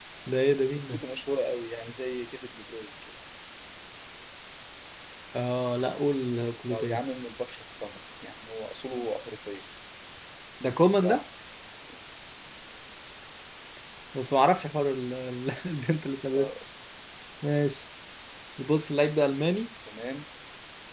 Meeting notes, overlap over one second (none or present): none